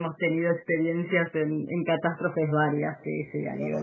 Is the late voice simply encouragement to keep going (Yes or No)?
No